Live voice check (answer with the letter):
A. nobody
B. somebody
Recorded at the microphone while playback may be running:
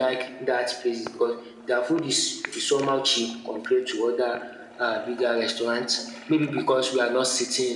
A